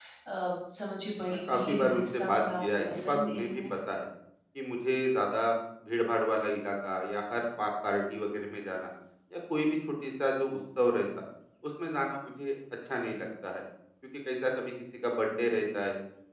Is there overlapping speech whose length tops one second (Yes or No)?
Yes